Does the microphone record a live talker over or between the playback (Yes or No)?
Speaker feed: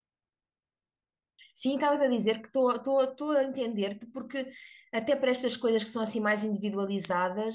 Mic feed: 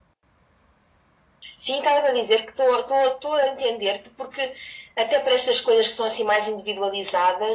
No